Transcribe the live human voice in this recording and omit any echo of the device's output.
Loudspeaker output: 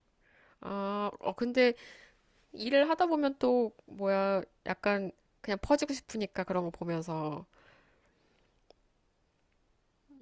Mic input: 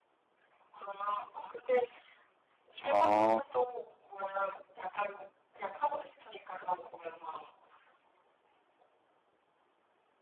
아,

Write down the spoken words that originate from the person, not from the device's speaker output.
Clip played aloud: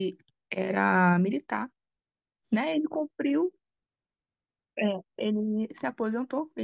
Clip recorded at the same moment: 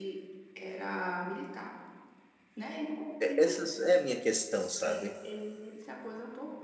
É- Essa é a minha questão, sabe?

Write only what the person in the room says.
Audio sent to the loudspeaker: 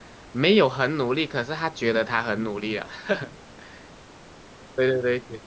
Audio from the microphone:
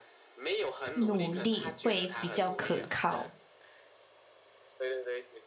努力会比较可靠。

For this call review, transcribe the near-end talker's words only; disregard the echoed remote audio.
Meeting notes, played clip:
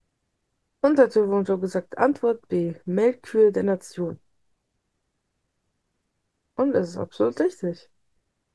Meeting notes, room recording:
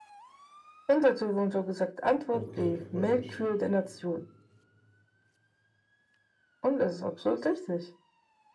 Okay, freut mich.

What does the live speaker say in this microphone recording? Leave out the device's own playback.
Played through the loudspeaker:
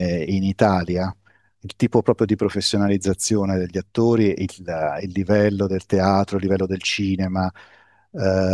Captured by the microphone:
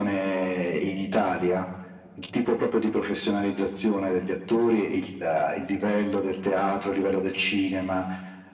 none

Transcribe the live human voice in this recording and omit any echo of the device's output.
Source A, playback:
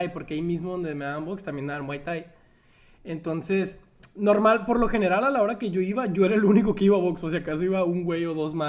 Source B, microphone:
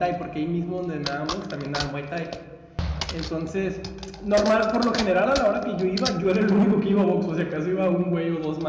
none

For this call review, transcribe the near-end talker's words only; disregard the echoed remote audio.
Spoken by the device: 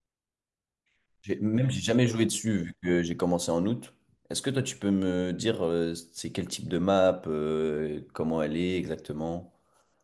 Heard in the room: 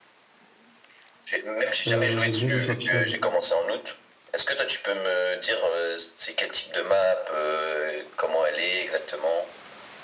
euh, j'aime bien jouer Sentinel.

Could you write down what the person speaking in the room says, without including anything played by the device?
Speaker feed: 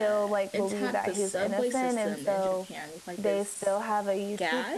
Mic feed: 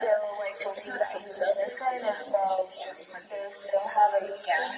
none

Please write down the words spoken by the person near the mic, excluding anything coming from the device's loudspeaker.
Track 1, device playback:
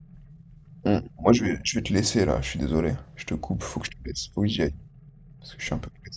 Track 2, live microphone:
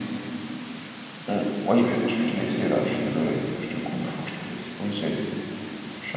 none

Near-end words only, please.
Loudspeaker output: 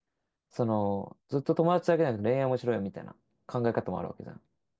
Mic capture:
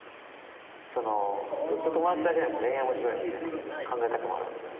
そうね。いや、でも、これっていう理由はない。

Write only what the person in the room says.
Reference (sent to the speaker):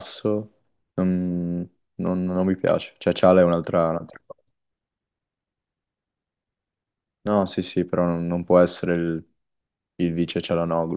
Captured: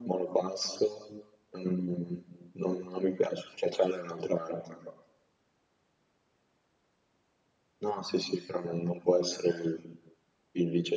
none

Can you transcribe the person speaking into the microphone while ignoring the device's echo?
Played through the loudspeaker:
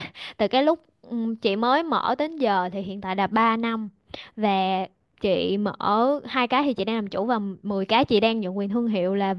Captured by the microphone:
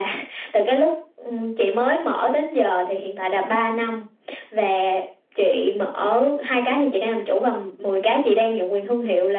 none

